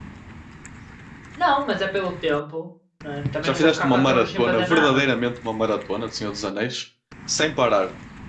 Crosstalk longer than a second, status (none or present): present